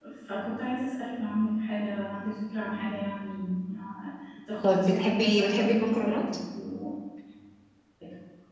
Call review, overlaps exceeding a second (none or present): present